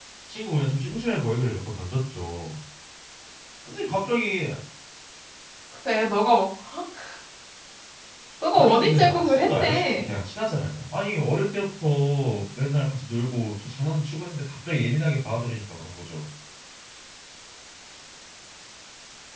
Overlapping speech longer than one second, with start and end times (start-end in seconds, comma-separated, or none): 8.5-10.1